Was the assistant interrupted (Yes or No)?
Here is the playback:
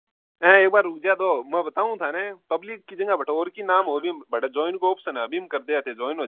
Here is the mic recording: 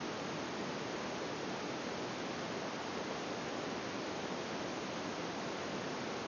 No